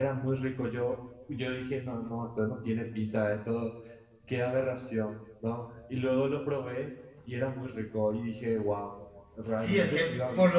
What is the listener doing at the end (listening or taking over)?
taking over